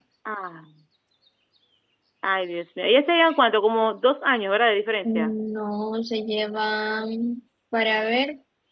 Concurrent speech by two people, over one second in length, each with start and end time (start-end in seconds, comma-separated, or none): none